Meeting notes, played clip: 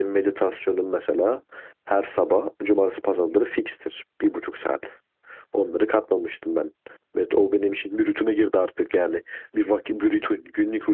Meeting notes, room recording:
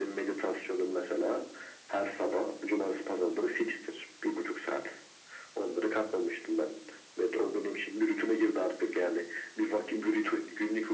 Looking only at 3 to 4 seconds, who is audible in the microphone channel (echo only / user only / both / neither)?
echo only